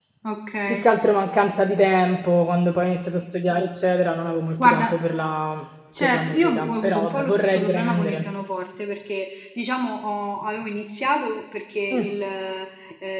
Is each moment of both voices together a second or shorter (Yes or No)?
No